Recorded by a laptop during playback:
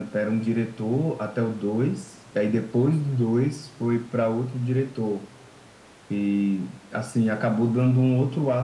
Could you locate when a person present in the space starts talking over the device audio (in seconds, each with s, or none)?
none